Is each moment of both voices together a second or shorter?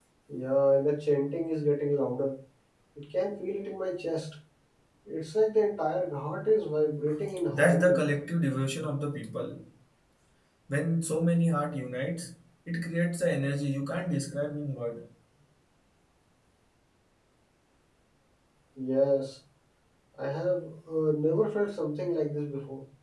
Yes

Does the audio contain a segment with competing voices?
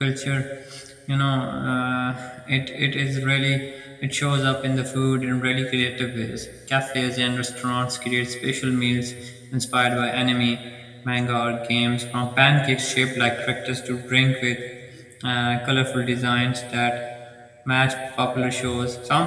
No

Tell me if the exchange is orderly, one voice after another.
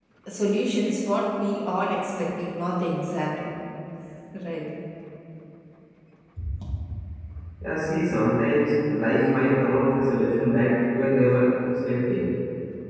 Yes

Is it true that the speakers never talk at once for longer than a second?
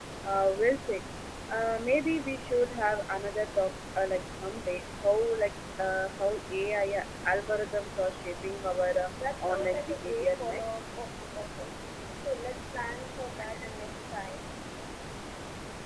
No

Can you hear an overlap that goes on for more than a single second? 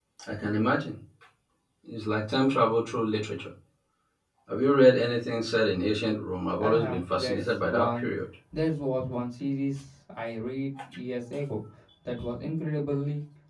Yes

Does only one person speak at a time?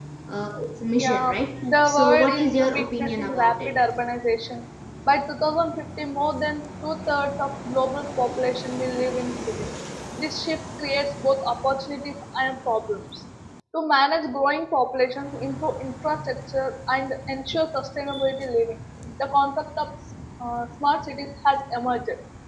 No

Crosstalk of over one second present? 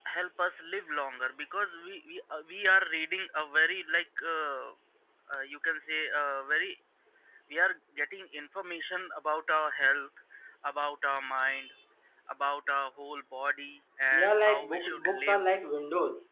Yes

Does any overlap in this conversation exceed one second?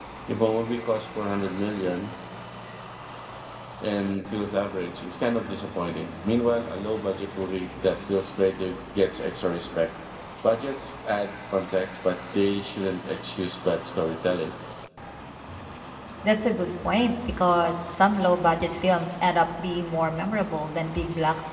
No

